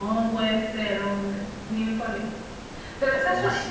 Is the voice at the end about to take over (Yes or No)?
No